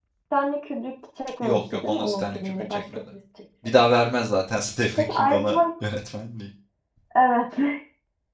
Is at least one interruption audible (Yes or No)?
Yes